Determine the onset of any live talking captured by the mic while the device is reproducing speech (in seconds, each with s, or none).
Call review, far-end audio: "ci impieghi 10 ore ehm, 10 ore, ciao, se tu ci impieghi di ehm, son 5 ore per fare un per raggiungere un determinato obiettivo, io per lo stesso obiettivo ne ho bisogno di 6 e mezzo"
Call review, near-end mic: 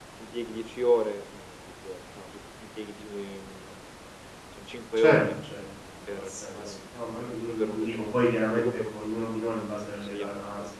5.0 s